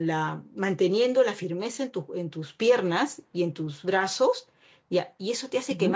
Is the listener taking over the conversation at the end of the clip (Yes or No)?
No